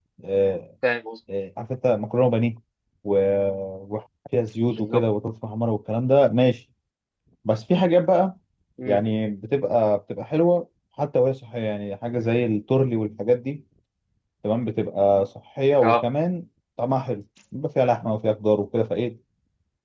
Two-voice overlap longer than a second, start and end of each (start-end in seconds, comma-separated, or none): none